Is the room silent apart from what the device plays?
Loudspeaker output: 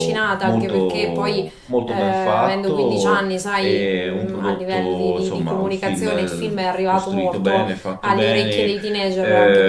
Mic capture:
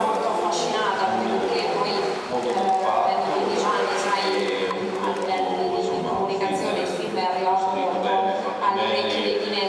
Yes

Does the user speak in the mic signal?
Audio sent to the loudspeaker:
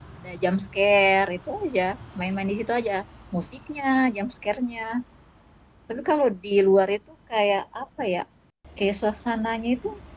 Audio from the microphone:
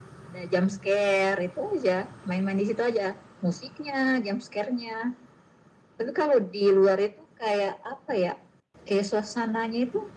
No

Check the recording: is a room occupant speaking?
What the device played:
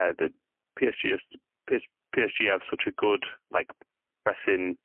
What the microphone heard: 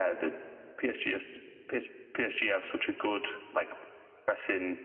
No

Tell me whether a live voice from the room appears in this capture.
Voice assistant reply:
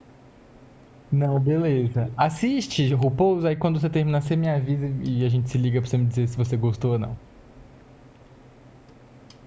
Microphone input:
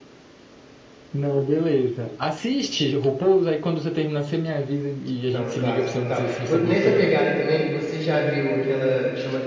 Yes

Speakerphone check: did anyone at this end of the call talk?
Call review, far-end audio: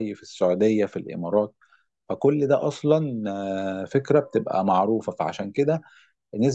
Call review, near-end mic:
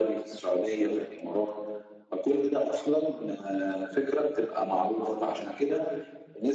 No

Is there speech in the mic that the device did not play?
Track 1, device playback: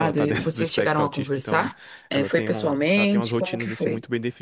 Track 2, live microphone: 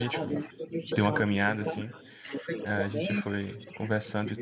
Yes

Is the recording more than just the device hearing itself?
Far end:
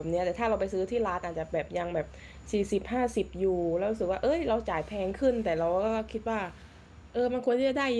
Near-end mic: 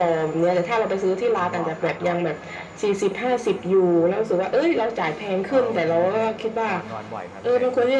Yes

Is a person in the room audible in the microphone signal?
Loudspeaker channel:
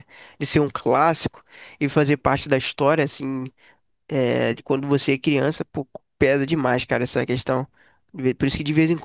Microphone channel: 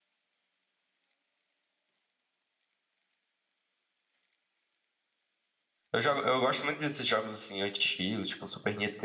Yes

